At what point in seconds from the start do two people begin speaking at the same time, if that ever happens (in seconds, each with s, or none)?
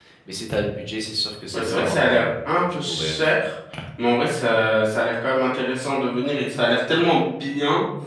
1.5 s